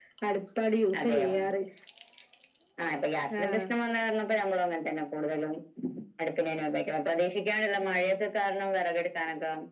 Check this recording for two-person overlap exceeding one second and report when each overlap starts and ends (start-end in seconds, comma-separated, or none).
none